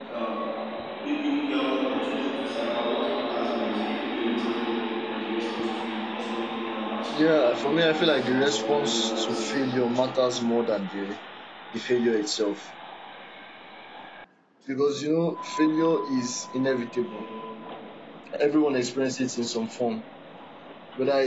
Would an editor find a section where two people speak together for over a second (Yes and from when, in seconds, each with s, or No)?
Yes, from 7.1 s